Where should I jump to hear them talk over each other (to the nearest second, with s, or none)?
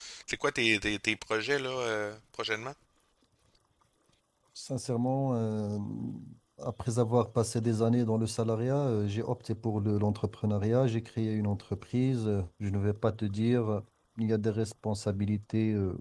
none